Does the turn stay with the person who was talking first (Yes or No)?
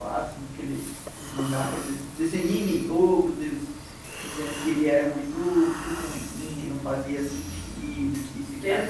No